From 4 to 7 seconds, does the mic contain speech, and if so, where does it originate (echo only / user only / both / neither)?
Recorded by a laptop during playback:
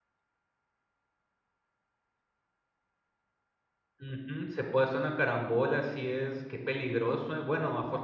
user only